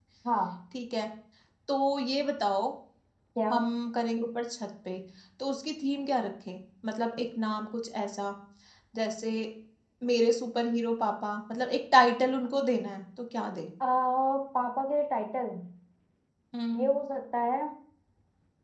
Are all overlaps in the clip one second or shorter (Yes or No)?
Yes